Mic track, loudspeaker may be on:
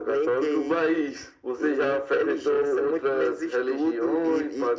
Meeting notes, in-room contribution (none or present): none